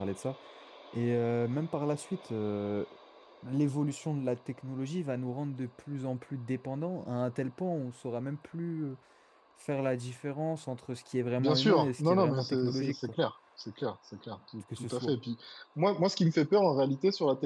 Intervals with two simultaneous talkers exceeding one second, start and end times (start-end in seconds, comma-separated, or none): 11.4-13.1